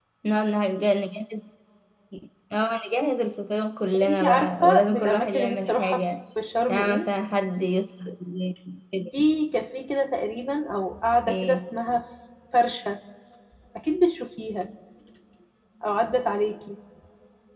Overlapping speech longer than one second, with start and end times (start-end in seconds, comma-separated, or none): 3.9-6.0